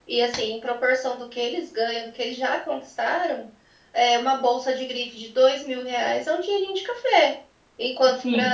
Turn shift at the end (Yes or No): No